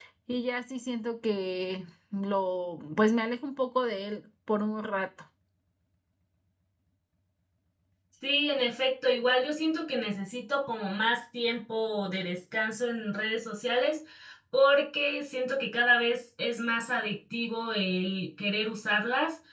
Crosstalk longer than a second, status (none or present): none